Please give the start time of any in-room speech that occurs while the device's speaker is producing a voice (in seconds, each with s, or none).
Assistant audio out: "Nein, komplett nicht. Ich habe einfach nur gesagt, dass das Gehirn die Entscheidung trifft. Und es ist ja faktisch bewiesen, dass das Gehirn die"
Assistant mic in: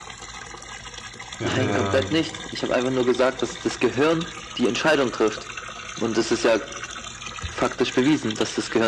1.4 s